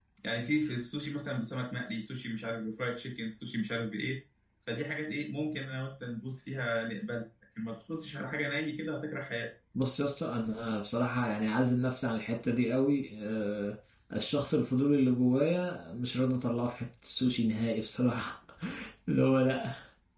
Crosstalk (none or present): none